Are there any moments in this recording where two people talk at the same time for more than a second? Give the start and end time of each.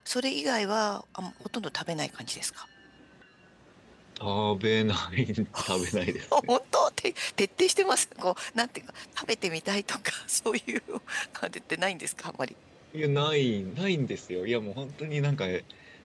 none

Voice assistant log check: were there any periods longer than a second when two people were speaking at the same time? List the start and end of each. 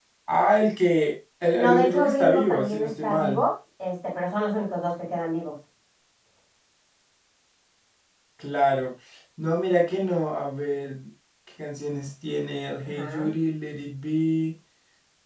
1.5-3.4

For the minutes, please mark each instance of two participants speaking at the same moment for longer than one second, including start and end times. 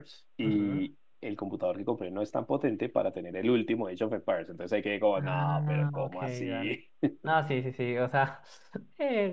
5.2-6.8

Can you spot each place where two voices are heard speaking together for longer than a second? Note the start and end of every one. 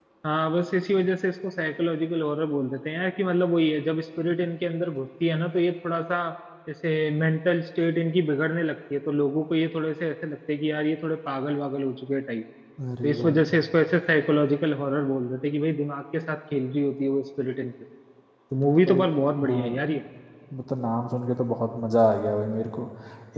none

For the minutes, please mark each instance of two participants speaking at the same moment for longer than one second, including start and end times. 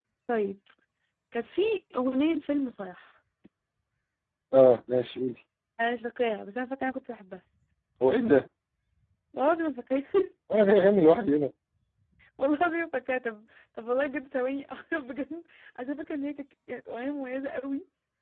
none

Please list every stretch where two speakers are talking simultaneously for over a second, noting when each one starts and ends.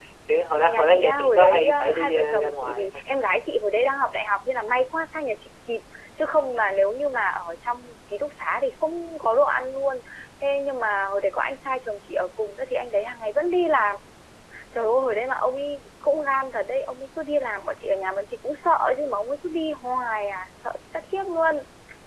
0.7-3.0

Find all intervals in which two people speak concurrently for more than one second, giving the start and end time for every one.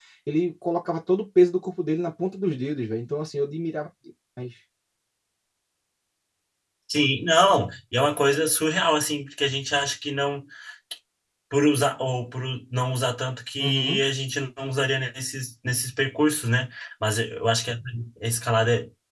none

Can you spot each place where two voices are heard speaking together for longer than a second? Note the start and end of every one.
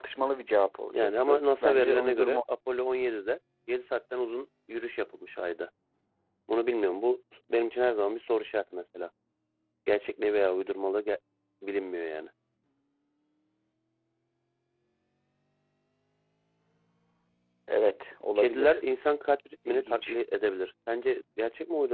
0.9-2.4

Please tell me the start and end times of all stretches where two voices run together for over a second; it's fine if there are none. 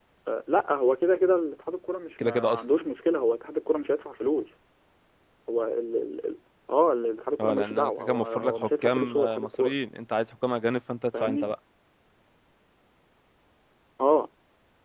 7.4-9.7

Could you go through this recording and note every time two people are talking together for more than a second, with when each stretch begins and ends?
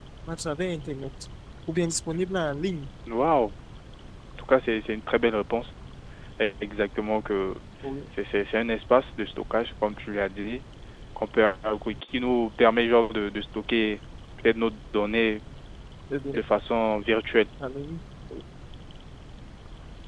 none

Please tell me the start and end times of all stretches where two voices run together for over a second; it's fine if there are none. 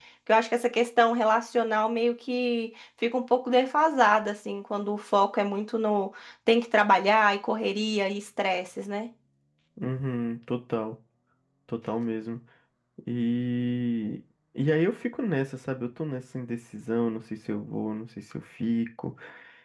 none

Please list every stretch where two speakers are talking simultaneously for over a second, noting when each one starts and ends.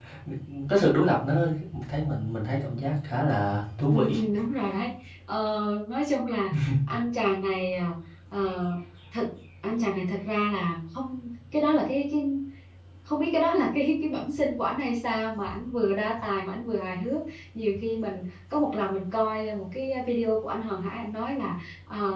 none

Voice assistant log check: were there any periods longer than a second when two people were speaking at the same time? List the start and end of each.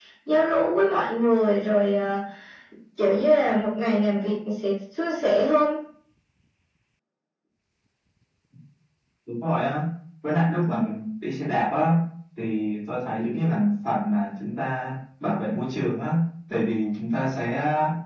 none

